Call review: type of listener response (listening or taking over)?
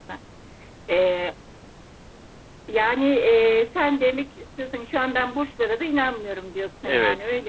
taking over